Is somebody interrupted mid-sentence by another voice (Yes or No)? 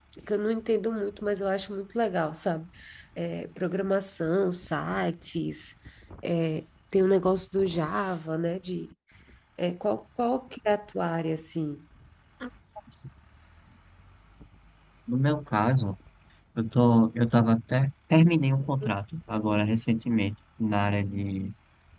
No